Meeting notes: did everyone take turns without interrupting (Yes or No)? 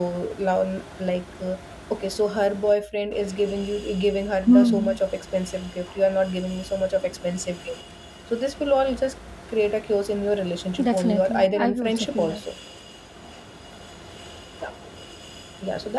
No